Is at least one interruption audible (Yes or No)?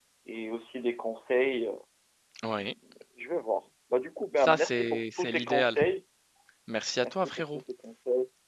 Yes